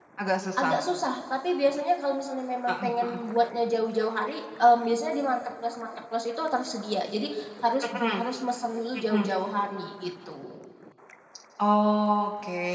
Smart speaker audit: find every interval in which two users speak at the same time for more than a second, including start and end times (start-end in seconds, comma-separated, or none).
none